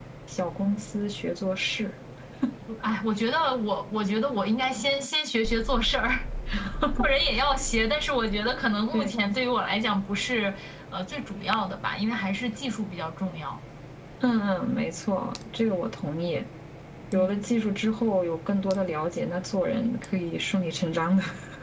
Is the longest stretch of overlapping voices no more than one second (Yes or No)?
Yes